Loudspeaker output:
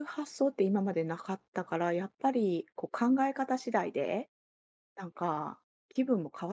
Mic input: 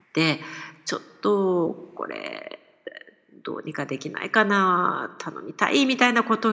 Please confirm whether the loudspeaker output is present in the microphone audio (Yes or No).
No